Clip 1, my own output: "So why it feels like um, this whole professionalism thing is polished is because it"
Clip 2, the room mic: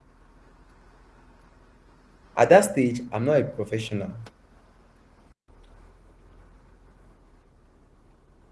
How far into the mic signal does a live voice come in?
2.4 s

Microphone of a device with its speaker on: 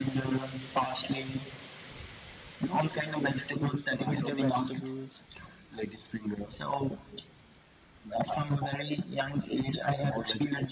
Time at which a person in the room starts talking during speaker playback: 4.0 s

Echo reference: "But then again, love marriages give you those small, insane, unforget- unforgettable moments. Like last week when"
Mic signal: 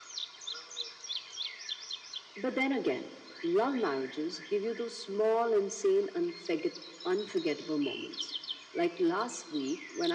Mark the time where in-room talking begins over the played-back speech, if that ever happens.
none

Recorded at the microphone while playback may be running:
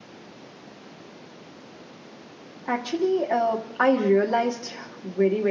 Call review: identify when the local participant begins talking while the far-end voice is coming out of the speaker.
2.7 s

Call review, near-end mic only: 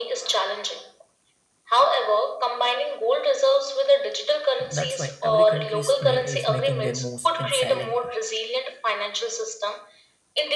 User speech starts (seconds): 4.6 s

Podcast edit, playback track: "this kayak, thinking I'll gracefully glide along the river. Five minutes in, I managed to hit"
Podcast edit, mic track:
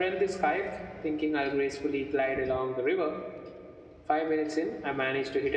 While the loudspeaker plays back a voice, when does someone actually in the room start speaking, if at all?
none

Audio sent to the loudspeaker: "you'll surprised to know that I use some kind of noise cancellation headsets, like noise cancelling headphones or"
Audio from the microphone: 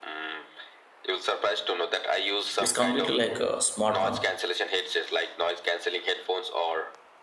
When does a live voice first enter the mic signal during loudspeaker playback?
2.6 s

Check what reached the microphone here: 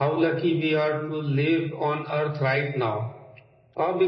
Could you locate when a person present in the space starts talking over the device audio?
none

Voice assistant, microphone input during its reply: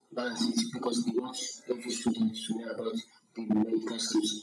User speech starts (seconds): none

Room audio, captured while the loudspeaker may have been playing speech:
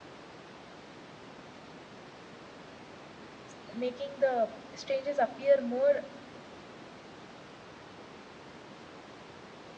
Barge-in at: 3.5 s

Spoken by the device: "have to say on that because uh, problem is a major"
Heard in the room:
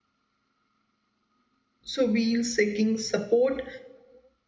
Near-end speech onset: 1.9 s

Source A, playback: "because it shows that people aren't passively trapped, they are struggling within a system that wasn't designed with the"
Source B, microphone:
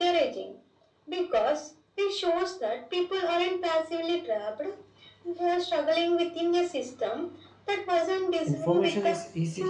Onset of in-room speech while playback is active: 8.4 s

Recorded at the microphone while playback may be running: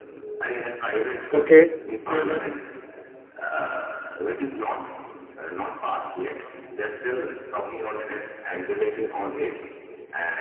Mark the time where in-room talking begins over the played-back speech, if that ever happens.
1.3 s

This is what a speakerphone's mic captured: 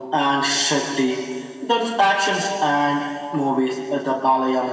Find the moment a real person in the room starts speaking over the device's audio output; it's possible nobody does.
none

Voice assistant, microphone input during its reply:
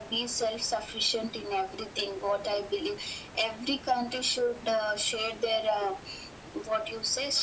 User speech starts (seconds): none

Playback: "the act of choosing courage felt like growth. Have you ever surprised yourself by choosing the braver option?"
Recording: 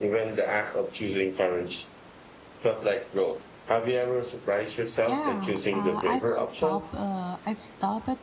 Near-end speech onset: 5.0 s

